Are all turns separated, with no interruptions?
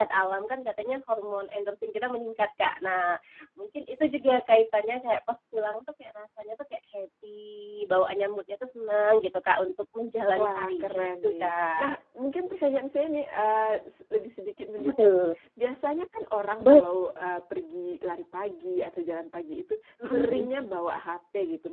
No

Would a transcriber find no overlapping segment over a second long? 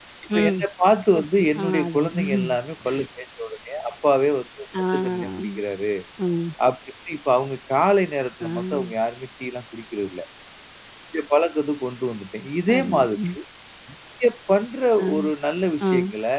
No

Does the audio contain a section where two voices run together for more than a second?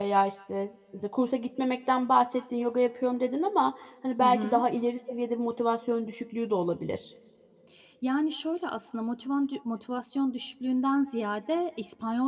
No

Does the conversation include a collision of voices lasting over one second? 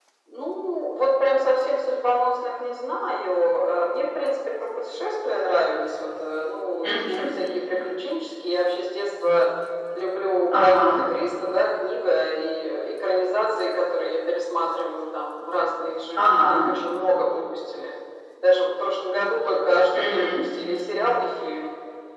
No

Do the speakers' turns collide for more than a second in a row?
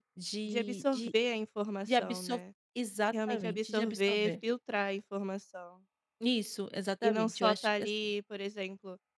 Yes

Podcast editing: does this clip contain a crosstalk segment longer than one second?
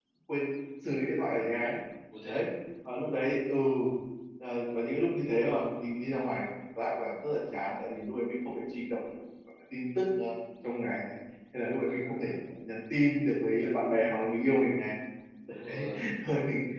No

